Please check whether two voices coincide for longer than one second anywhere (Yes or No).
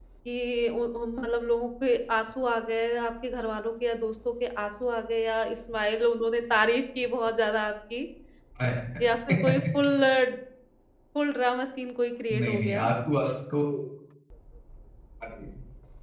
No